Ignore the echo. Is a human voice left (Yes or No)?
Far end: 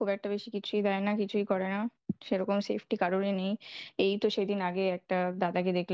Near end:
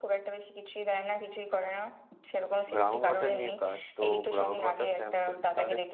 Yes